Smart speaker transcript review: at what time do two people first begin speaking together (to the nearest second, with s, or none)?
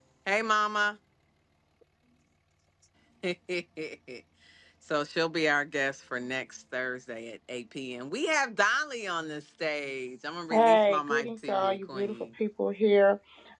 11 s